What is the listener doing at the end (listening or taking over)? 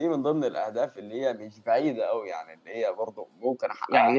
taking over